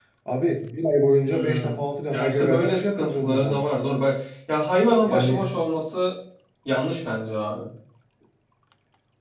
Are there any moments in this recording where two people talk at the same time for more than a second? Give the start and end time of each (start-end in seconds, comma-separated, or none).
2.1-3.6